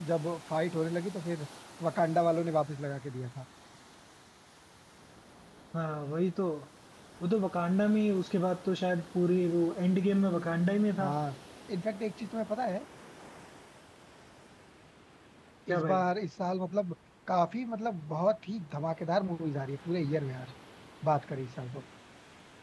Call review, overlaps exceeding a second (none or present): none